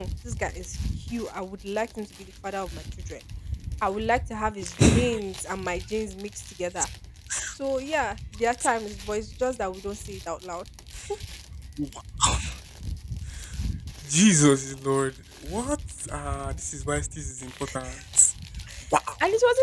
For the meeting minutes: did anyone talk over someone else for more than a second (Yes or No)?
No